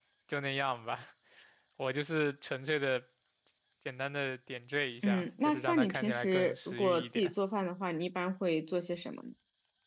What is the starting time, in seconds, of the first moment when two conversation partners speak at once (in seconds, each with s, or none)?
5.0 s